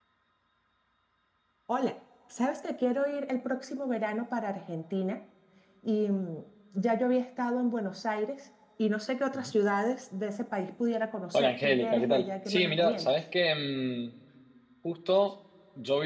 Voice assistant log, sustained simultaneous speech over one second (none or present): present